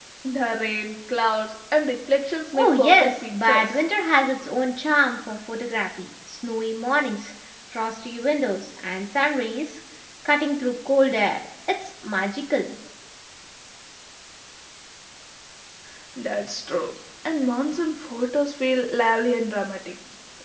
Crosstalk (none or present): present